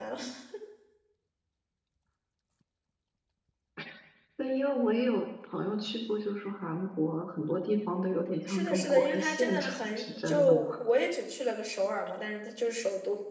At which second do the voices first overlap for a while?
8 s

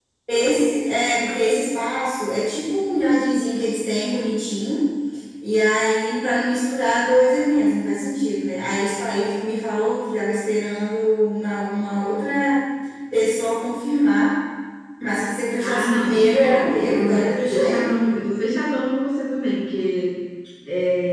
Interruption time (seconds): 16 s

